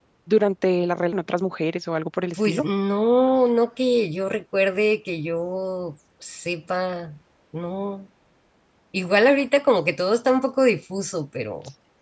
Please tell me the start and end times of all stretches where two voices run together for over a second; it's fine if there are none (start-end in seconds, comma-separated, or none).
none